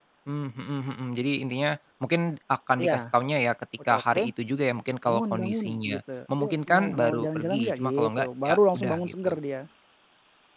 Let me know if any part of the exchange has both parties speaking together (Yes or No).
Yes